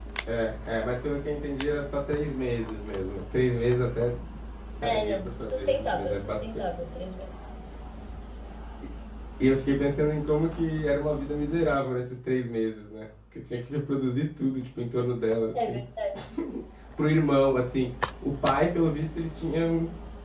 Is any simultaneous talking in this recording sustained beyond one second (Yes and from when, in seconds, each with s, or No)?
Yes, from 4.8 s